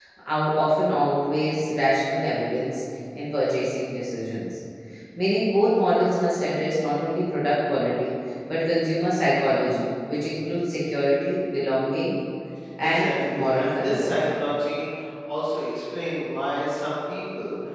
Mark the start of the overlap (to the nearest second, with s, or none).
13 s